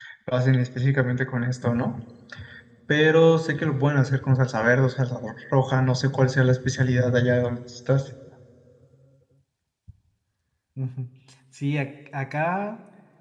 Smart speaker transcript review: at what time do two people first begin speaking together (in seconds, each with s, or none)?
none